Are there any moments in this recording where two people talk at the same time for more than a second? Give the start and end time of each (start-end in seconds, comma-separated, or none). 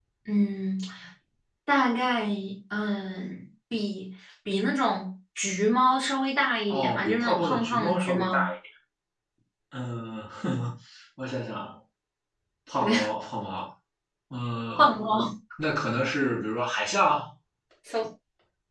6.7-8.5